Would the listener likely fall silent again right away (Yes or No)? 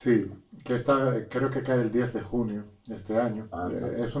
Yes